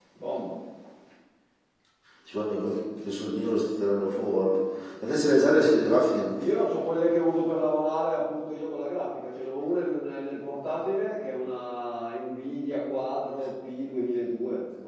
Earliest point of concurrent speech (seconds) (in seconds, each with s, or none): none